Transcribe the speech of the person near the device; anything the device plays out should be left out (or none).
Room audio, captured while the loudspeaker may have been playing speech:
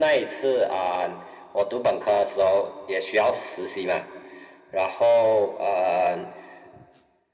none